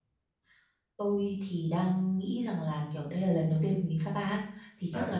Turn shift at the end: No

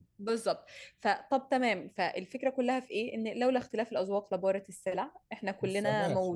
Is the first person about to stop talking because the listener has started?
Yes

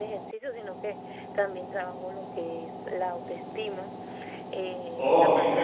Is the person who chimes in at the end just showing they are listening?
No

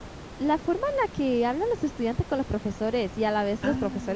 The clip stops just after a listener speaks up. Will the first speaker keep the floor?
Yes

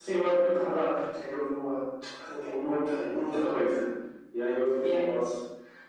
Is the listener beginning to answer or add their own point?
No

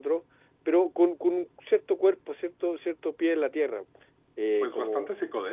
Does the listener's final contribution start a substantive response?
Yes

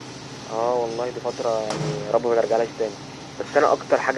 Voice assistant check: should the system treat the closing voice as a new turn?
No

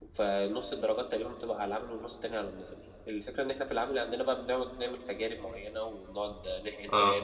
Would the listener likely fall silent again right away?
Yes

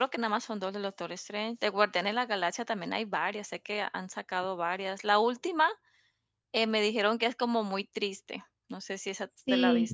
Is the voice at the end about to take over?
Yes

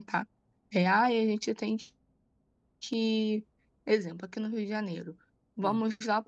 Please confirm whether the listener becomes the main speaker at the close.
No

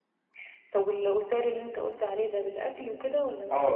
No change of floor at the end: No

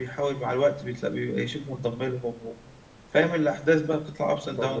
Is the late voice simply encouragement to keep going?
No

